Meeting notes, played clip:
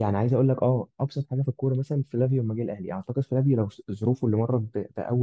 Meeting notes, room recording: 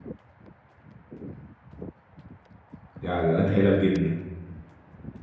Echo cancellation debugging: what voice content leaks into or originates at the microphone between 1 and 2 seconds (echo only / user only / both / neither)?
neither